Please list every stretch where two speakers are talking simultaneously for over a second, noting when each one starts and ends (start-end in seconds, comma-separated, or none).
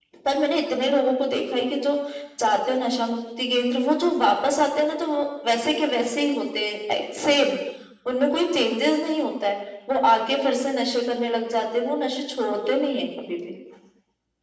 none